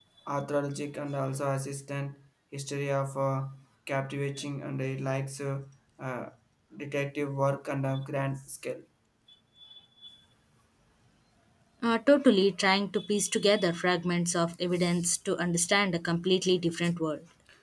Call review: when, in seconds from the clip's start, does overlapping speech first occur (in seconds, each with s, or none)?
none